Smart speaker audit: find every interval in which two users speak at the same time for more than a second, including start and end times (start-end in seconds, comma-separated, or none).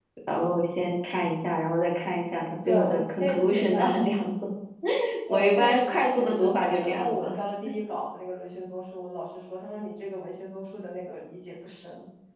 2.6-4.1, 5.3-7.1